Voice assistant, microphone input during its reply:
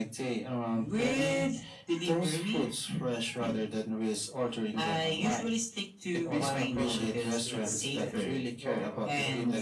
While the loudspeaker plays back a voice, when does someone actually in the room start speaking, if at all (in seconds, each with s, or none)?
6.2 s